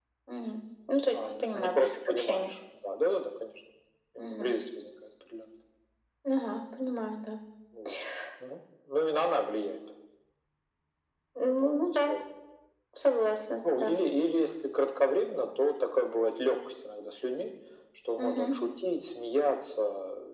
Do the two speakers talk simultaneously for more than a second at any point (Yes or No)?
Yes